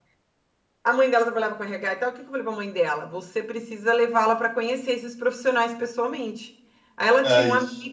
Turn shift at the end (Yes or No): No